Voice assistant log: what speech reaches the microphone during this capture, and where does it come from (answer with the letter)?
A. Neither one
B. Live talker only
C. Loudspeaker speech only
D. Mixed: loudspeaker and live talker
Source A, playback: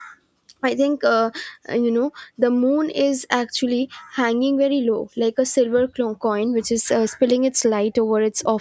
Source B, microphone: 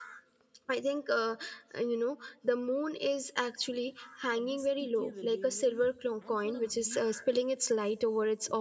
D